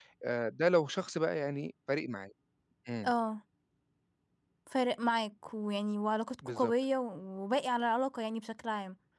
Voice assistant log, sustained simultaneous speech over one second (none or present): none